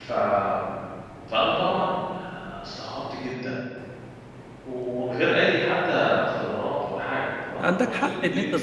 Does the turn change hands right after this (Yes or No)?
Yes